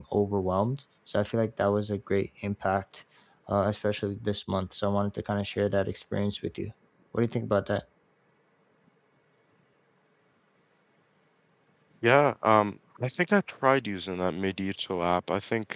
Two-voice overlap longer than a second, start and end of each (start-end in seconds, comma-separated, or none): none